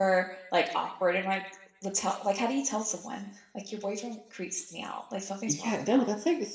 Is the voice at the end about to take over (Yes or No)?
Yes